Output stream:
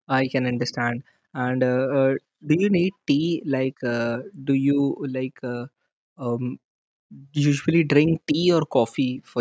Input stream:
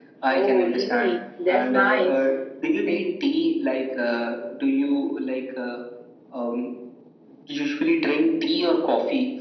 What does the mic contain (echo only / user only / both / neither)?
both